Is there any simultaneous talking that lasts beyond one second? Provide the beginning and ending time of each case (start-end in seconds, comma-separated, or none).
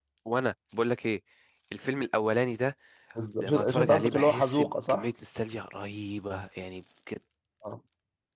3.4-5.0